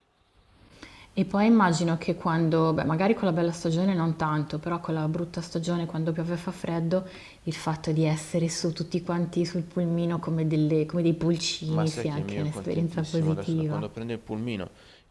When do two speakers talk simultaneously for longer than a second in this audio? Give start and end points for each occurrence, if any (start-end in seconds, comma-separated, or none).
11.7-13.8